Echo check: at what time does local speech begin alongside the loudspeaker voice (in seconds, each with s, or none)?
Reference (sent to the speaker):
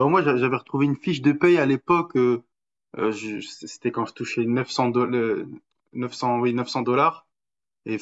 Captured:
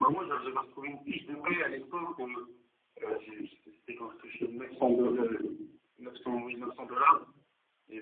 none